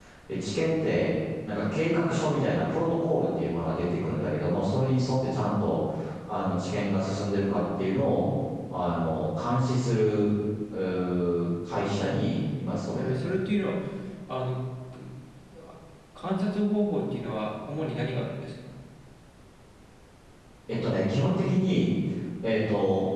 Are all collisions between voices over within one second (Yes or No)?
Yes